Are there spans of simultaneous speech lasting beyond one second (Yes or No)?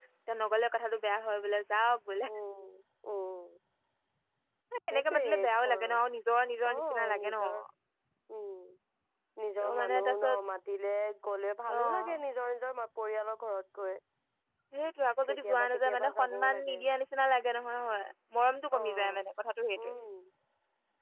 Yes